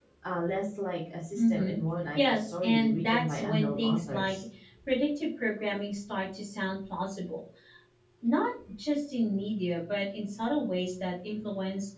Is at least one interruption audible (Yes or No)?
Yes